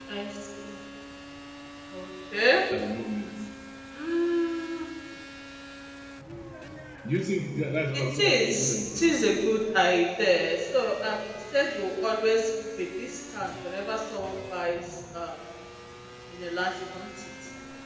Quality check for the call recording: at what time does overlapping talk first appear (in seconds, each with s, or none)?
7.9 s